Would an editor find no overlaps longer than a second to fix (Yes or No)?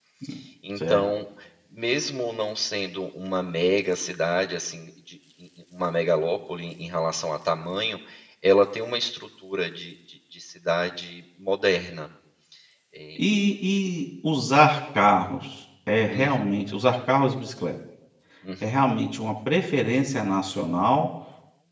Yes